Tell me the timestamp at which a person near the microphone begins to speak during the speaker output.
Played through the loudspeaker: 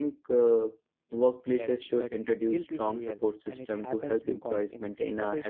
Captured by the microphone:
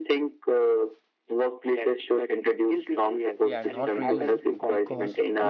3.4 s

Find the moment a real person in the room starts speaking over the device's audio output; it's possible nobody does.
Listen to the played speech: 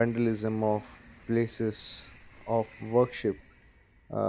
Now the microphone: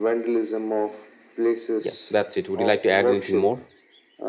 1.8 s

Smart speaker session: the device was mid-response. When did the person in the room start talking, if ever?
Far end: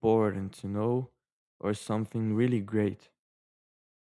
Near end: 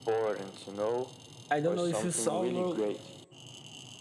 1.5 s

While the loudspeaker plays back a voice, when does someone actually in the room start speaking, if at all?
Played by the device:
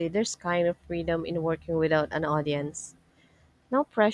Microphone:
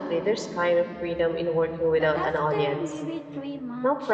1.9 s

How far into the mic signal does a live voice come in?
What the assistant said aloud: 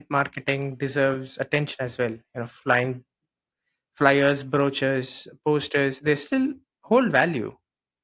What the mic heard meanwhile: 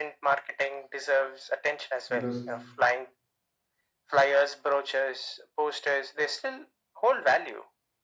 2.1 s

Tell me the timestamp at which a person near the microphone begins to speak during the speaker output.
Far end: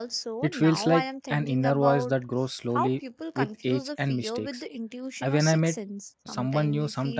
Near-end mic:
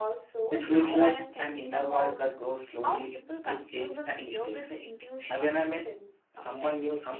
none

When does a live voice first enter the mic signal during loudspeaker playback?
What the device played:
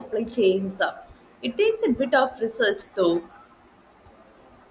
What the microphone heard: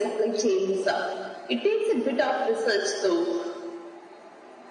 none

